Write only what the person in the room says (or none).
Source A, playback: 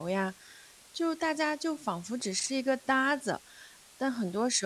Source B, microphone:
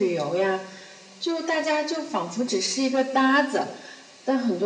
none